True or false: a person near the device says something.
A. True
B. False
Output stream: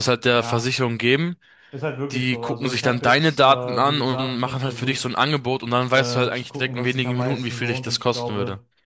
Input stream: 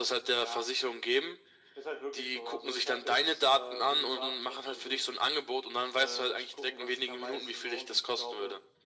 B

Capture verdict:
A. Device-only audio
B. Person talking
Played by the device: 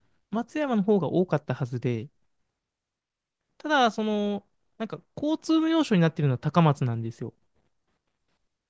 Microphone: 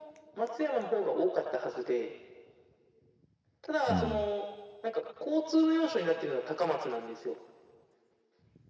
B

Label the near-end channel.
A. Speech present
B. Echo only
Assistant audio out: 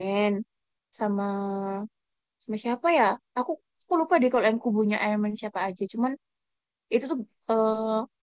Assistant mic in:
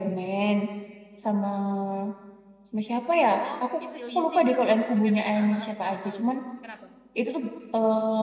A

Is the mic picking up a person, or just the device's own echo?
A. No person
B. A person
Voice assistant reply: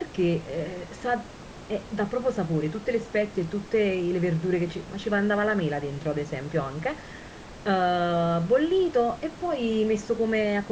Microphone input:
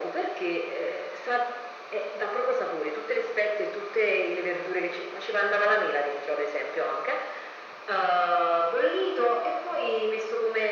A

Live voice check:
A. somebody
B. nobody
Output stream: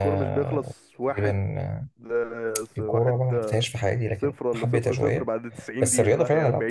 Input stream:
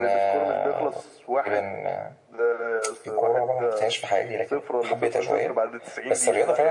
B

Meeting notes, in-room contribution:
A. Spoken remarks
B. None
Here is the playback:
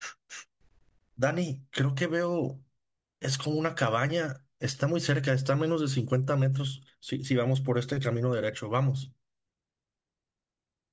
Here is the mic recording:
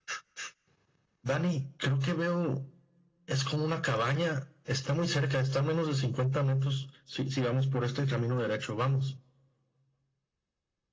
B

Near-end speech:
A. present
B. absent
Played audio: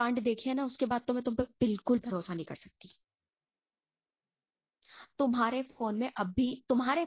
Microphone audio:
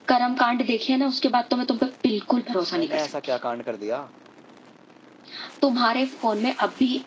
A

